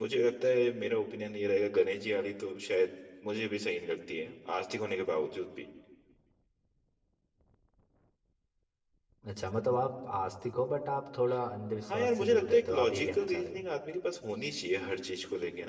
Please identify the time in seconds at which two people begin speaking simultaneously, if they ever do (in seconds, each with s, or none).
11.9 s